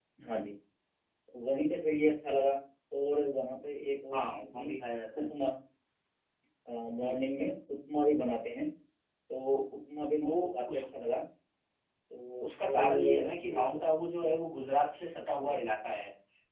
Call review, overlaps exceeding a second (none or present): present